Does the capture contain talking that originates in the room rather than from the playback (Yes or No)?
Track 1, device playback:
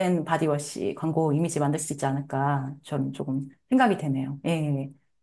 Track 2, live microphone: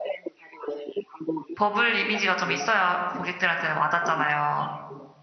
Yes